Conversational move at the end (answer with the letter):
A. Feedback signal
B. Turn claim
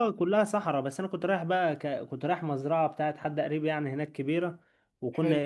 A